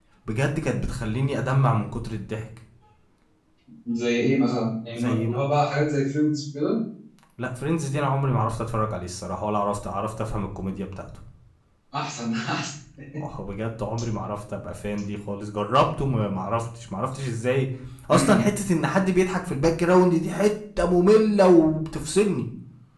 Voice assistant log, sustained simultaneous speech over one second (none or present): none